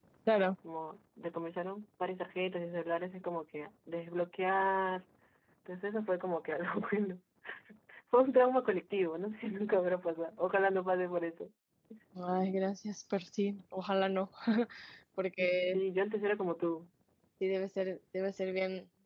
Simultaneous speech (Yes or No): No